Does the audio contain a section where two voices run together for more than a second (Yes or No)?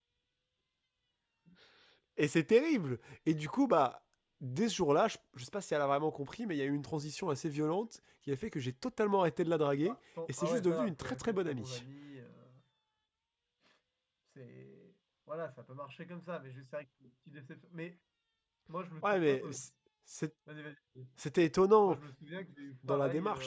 Yes